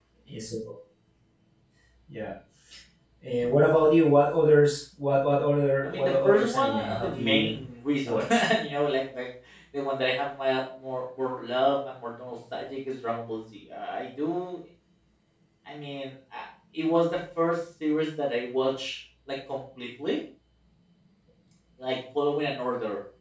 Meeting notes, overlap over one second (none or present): present